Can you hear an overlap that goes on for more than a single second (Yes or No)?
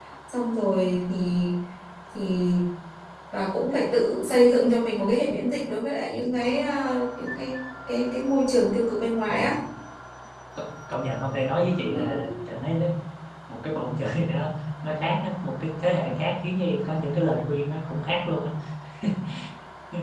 No